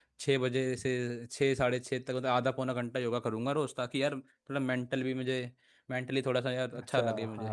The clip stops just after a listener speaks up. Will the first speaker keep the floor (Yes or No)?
No